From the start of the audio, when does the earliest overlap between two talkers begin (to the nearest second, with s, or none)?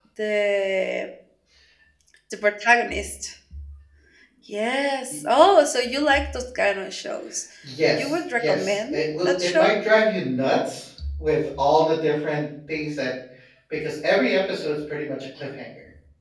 8 s